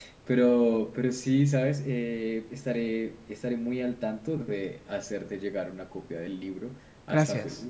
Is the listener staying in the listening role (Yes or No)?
Yes